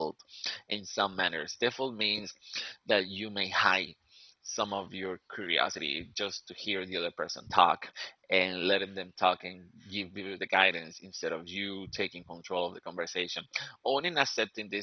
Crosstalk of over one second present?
No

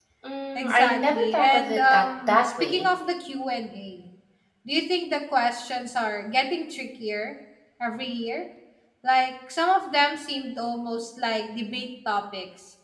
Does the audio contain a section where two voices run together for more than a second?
Yes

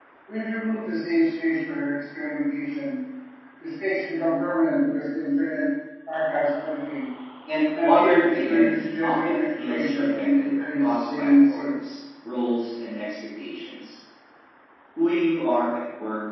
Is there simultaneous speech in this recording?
Yes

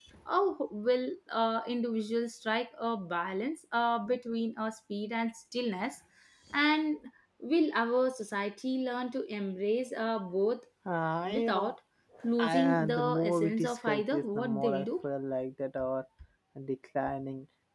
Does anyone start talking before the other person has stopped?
Yes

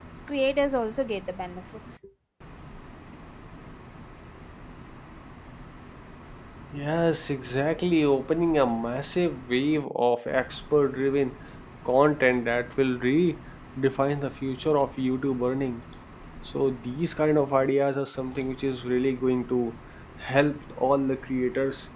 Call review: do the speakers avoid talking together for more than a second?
Yes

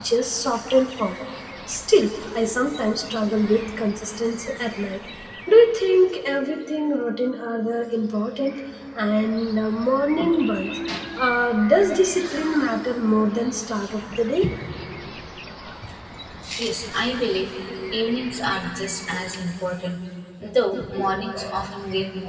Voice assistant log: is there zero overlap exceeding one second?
Yes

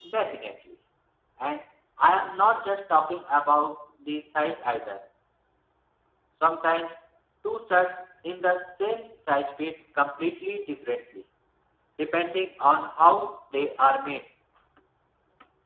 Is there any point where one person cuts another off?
No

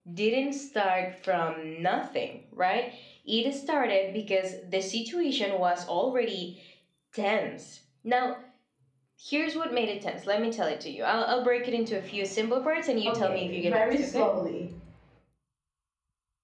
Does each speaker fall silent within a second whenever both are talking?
No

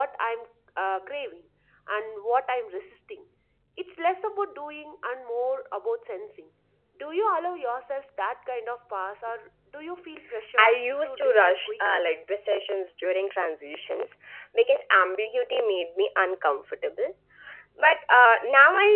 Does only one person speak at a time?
No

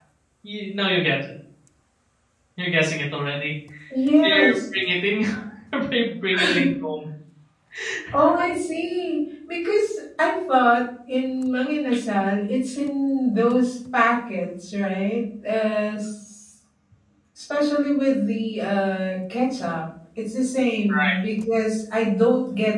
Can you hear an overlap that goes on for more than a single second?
No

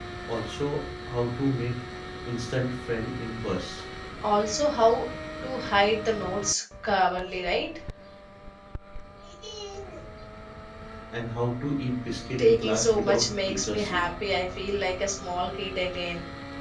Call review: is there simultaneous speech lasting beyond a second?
Yes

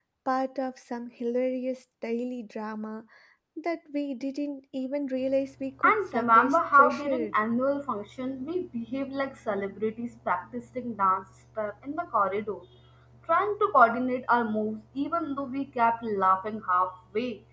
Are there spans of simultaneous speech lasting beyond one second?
Yes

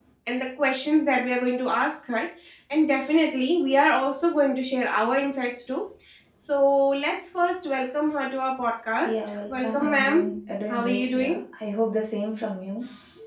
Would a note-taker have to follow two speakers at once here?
Yes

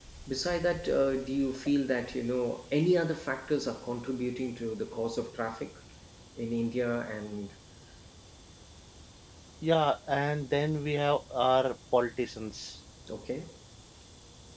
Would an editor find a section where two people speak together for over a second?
No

